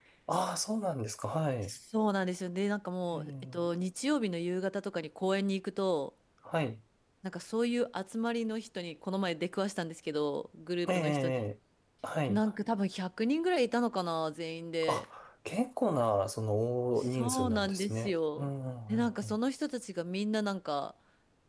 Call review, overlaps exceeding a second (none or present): present